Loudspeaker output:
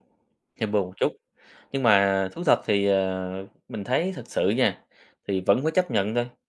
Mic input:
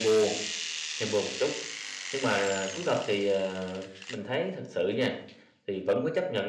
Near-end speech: none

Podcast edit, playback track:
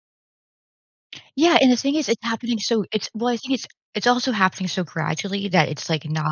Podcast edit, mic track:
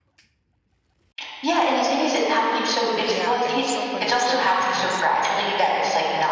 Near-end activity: present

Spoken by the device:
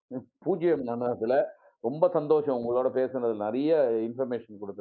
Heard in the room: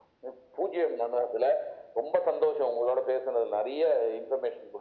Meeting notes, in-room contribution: none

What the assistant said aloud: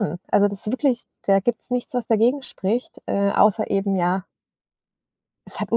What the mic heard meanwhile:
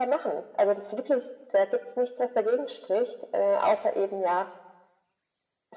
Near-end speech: none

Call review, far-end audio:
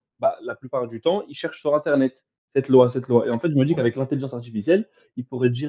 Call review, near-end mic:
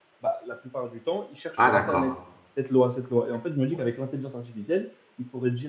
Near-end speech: present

